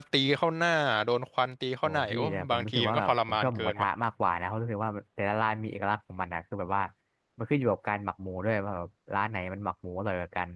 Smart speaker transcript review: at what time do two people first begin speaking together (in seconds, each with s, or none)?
1.8 s